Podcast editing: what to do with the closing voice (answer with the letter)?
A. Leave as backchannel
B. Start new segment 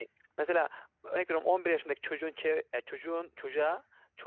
A